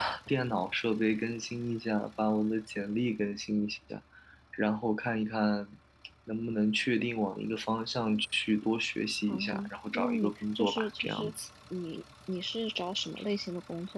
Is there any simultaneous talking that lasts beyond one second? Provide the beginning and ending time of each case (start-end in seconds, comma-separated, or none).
9.3-11.3